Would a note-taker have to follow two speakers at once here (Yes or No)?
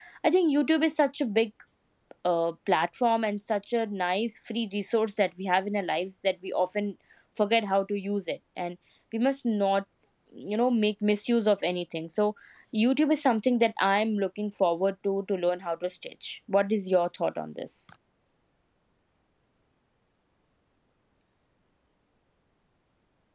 No